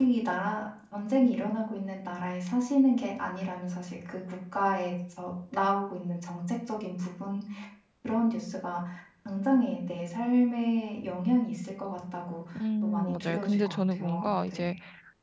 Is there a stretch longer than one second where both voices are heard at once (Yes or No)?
Yes